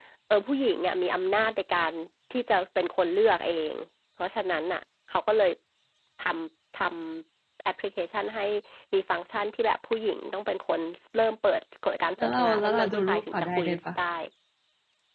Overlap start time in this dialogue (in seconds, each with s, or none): 12.2 s